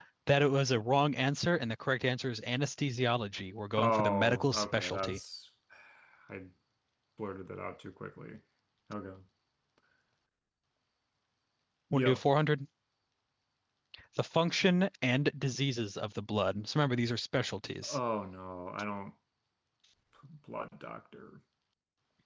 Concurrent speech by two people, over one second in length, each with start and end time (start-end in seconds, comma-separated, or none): 3.8-5.2